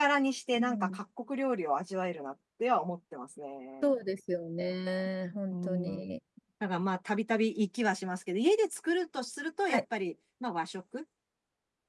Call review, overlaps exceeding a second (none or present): none